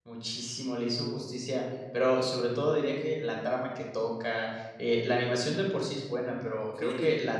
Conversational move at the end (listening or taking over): listening